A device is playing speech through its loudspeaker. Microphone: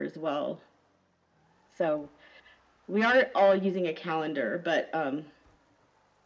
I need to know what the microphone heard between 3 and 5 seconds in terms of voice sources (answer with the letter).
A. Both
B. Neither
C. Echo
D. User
C